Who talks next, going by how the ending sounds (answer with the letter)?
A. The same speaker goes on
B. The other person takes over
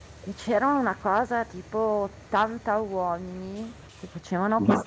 A